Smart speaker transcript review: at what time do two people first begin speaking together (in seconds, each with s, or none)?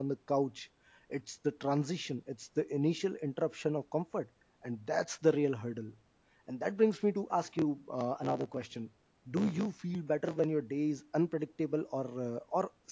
none